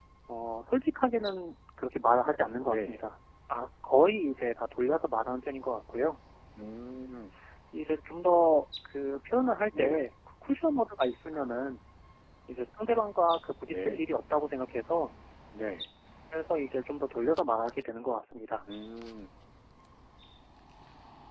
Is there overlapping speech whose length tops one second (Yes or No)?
No